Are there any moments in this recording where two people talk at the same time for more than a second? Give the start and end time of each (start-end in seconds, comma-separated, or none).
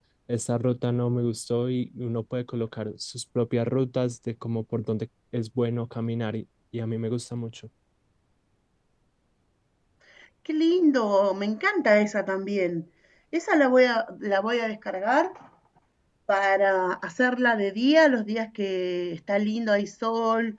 none